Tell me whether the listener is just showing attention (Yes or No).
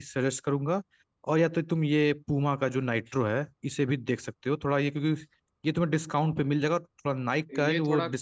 No